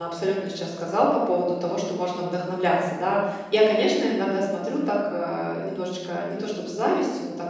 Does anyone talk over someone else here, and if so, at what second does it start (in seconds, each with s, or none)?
none